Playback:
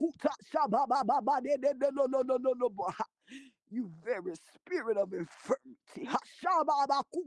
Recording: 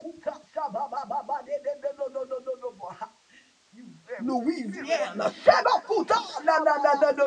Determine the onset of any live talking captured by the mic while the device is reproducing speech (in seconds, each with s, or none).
4.2 s